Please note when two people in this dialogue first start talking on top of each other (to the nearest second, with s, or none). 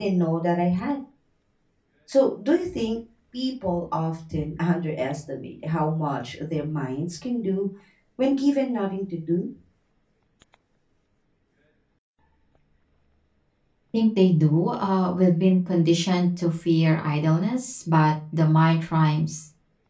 none